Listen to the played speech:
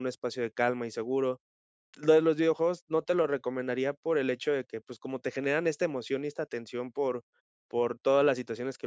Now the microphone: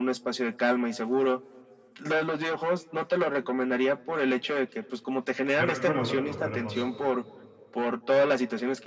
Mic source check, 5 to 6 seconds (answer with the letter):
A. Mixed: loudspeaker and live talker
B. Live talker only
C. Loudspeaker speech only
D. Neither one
A